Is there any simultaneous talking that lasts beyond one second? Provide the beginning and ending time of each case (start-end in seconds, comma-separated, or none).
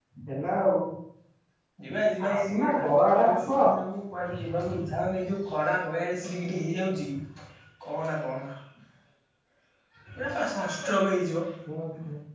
2.3-3.6